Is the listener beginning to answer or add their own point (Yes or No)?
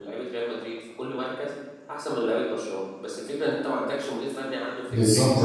Yes